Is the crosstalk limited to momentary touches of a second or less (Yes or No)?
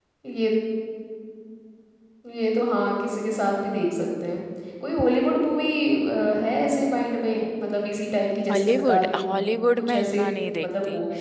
No